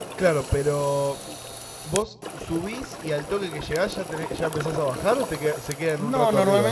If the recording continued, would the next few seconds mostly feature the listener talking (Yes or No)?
Yes